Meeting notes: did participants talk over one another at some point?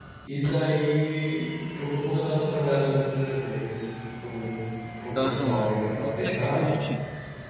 Yes, from 5.2 s

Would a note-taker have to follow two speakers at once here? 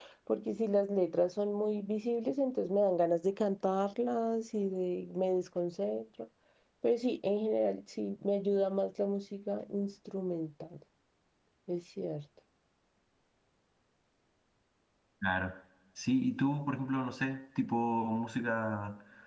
No

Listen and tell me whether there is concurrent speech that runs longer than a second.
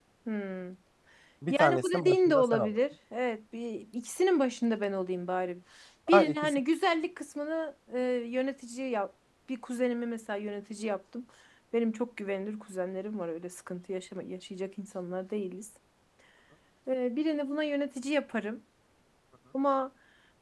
Yes, from 1.5 s

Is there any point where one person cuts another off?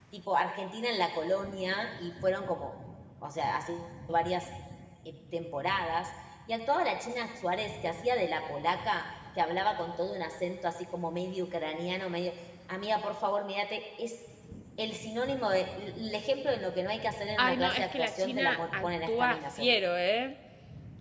Yes, from 17.4 s

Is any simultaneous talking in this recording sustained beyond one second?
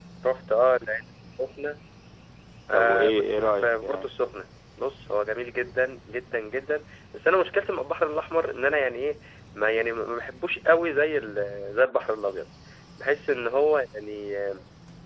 Yes, from 2.7 s

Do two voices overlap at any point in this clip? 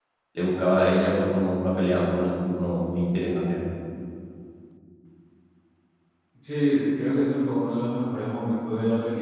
No

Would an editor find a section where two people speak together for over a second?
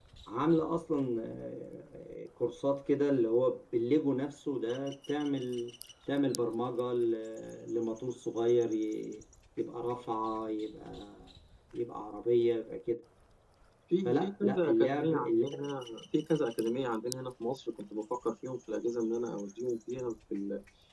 Yes, from 14.0 s

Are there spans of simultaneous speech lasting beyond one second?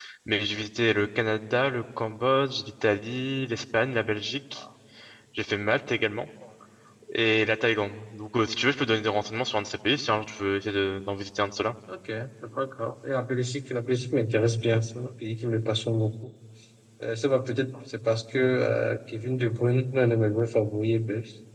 No

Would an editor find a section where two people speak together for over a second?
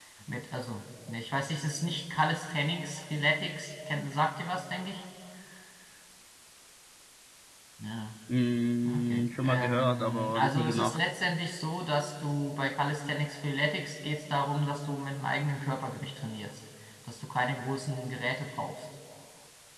Yes, from 8.8 s

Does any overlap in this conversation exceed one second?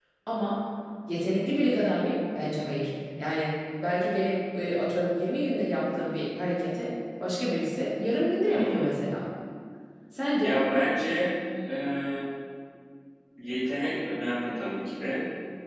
No

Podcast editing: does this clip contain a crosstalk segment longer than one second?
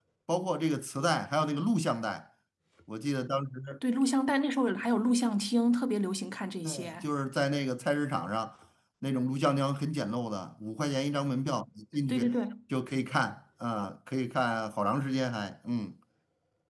No

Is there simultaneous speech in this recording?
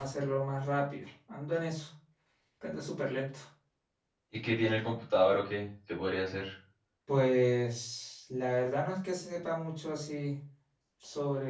No

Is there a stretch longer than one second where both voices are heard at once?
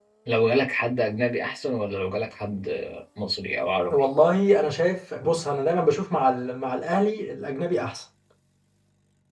No

